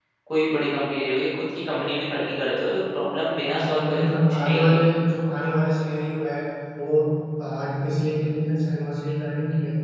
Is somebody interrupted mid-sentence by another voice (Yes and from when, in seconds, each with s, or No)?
Yes, from 3.5 s